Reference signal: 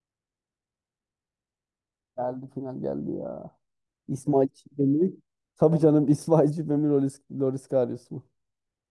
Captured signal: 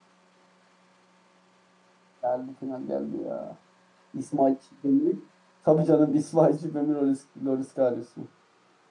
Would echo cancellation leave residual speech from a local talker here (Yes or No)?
No